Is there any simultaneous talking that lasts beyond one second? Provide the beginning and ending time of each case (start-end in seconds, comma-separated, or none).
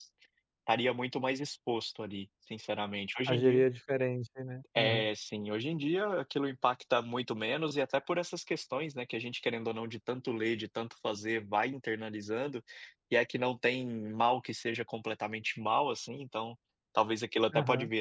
none